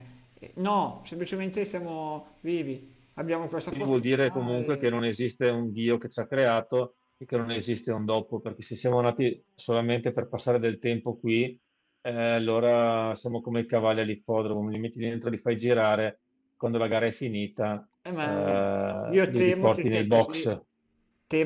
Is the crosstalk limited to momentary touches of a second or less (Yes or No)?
No